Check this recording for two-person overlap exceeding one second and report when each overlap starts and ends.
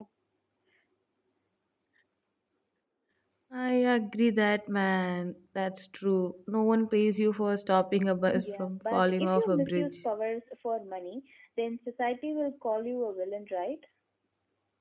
8.3-10.0

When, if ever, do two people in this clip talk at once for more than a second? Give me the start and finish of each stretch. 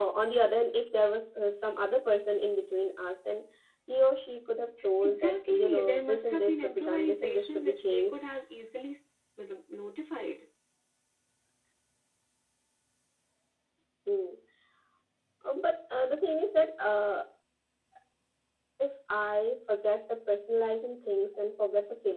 5.0-8.2

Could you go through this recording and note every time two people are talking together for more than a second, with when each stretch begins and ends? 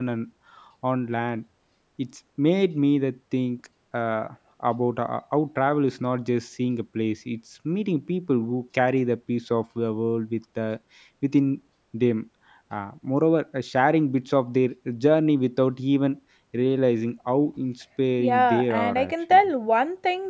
18.2-19.5

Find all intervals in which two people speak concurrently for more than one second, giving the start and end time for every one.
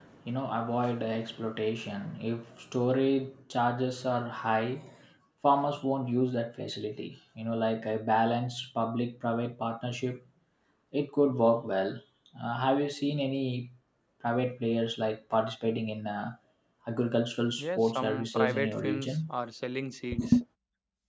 17.6-19.3

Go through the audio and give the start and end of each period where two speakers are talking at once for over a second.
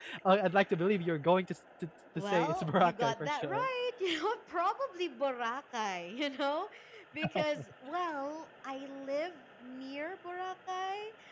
2.3-3.7

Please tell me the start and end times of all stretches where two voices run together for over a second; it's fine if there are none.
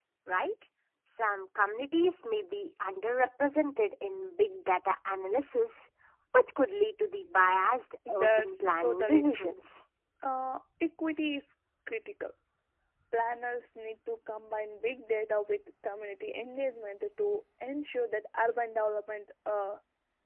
8.1-9.5

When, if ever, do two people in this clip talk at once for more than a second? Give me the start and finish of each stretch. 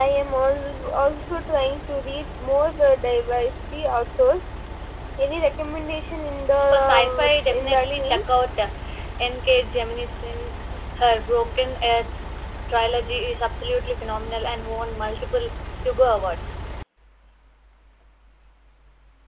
6.7-8.2

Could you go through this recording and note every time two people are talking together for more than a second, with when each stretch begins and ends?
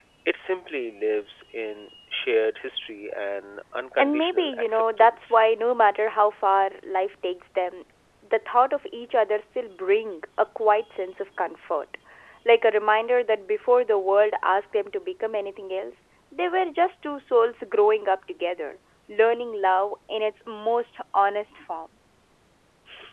4.0-5.4

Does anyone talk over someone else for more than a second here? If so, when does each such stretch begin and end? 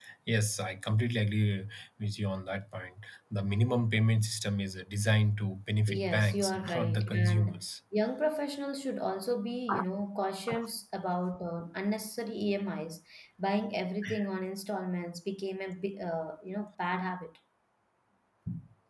5.9-7.6

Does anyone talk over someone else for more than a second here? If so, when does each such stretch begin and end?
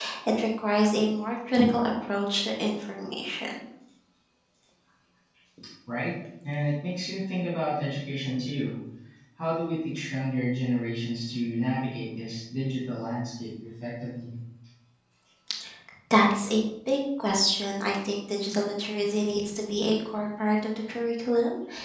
none

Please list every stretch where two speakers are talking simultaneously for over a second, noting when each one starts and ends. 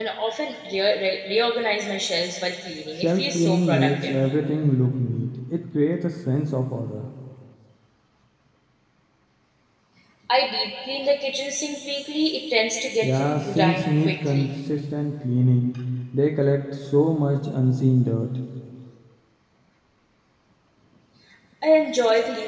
2.9-4.1, 13.0-14.5

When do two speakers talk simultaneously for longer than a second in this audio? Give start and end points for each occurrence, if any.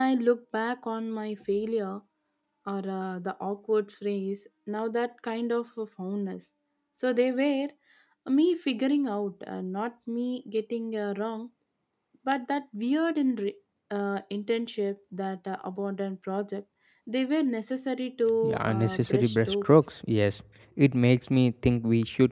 18.4-19.7

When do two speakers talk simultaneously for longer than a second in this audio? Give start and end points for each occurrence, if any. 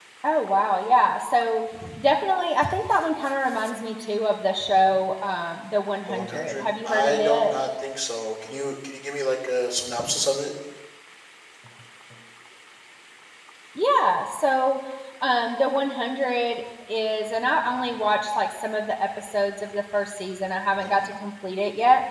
6.1-7.5

